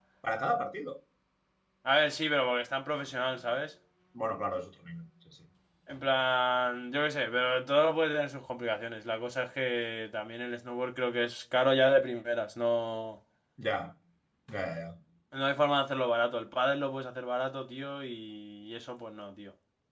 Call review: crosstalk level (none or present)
none